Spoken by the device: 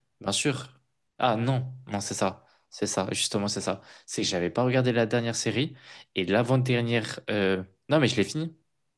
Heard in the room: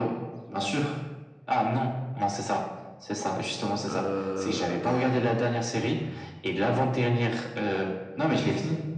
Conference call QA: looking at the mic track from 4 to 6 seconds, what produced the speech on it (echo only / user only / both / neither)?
both